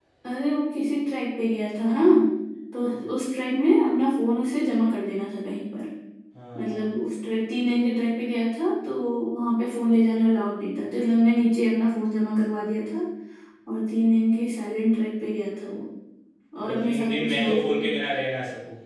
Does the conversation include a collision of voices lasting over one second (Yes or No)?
Yes